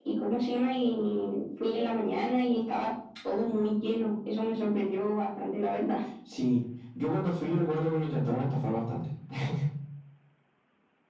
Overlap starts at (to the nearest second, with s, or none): none